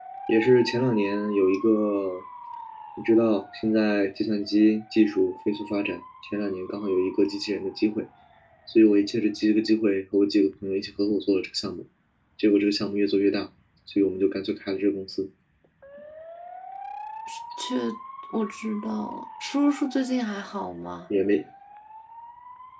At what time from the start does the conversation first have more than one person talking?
none

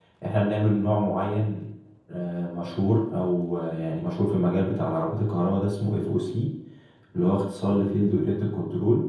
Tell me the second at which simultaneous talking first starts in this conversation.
none

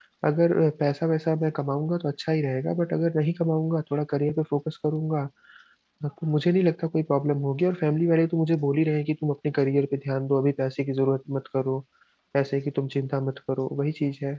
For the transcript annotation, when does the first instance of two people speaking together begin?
none

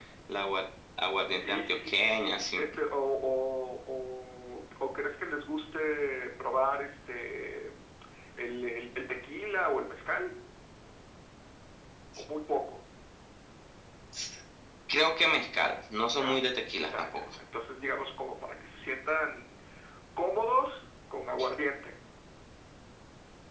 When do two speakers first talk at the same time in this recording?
1.4 s

